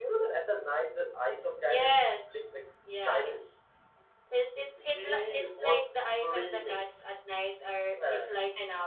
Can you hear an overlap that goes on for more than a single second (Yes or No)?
Yes